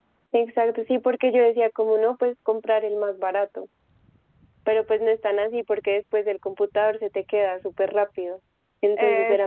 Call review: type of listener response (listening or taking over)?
listening